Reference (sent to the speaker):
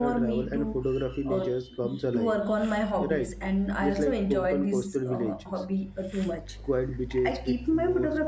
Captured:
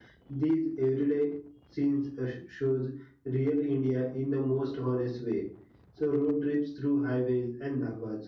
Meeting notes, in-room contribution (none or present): present